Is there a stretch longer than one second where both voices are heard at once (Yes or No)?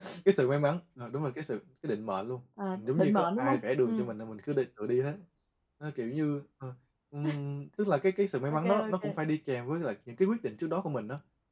Yes